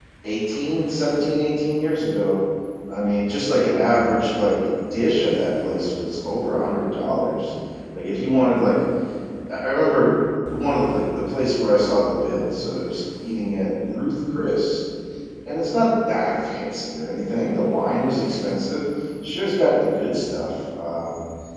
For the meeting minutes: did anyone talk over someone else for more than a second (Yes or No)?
No